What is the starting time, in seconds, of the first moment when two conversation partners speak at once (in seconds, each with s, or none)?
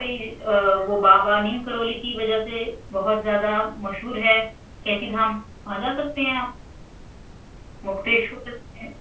none